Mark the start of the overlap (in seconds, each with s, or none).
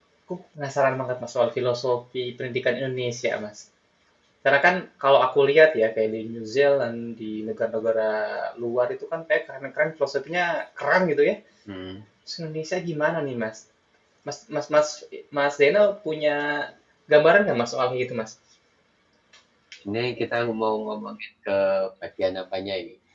none